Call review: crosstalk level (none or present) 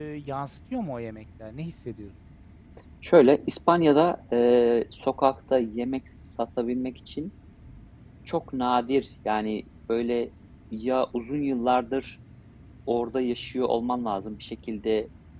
none